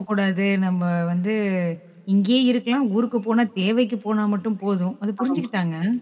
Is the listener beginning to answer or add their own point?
Yes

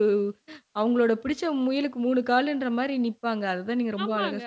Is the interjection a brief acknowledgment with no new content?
No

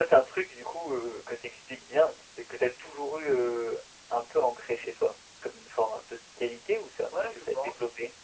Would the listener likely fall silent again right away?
No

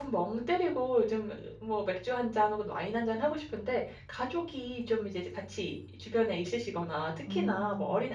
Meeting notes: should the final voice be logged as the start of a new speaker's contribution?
No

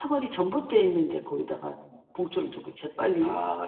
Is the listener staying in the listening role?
Yes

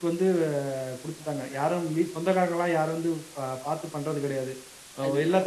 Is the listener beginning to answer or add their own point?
No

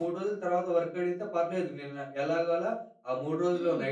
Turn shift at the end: No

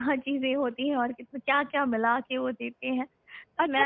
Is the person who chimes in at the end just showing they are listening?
No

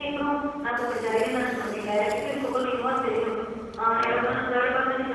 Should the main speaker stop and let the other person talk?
No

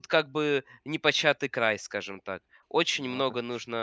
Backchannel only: Yes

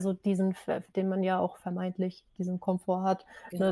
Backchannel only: Yes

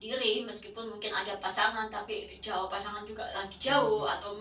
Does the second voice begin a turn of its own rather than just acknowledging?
No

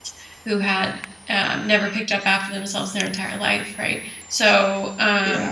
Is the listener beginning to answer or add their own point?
No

